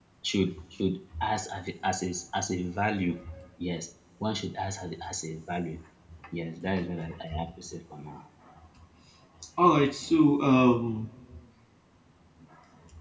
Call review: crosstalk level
none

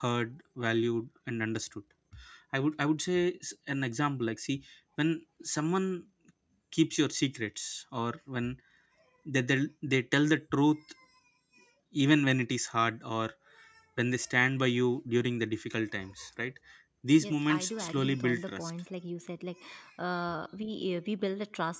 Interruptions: present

